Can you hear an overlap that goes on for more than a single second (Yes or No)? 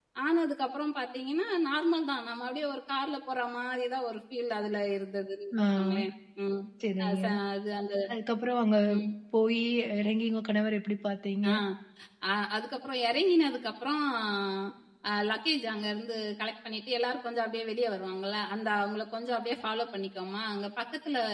No